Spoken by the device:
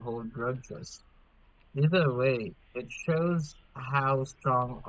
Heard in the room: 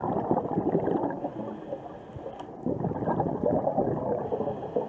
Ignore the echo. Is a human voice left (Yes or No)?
No